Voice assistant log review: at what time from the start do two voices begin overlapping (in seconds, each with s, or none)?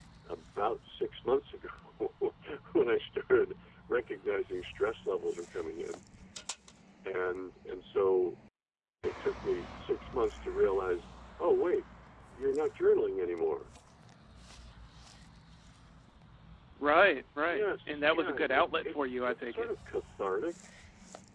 17.5 s